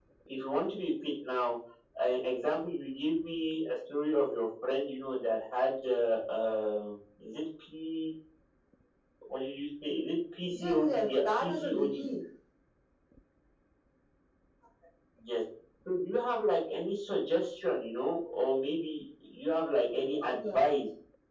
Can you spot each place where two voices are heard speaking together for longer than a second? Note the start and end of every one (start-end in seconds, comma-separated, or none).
10.6-11.9